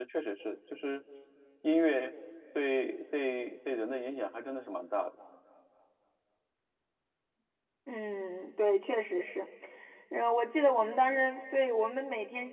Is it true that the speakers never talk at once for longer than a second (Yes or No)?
Yes